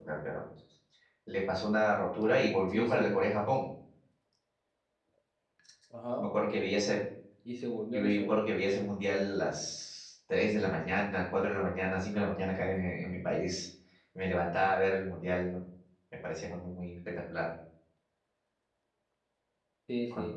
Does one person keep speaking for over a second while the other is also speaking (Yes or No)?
No